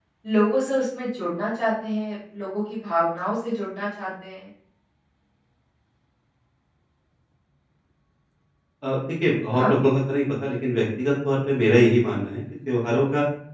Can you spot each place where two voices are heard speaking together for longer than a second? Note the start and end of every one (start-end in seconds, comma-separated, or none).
none